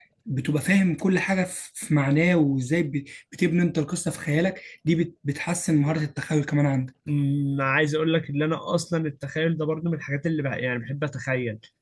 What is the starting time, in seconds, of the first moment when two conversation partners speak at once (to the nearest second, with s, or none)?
none